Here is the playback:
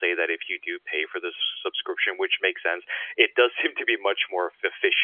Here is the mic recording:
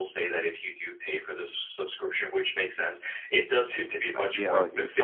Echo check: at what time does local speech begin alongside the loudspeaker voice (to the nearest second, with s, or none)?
4 s